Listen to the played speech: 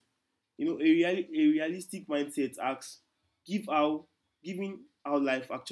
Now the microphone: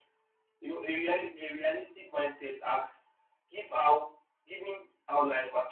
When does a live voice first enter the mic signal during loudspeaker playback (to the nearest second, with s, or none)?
none